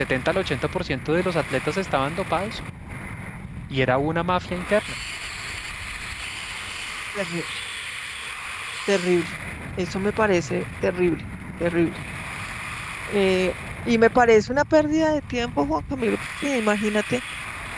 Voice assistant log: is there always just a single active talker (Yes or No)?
Yes